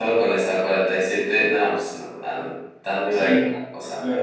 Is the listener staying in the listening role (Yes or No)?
No